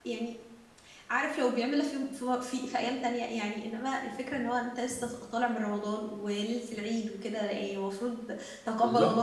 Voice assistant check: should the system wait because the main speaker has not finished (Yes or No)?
Yes